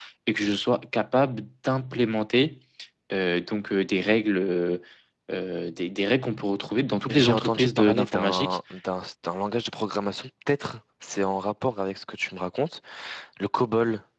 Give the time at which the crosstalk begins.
7.1 s

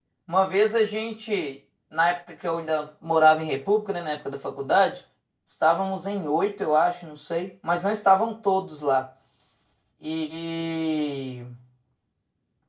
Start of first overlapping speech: none

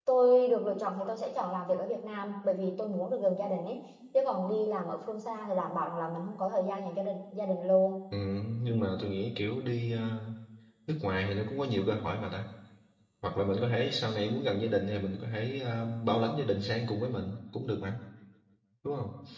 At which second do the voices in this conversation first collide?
none

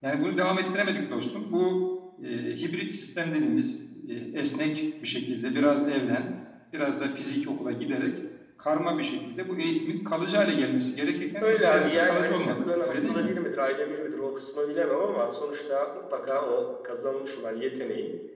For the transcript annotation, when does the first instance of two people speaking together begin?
11.4 s

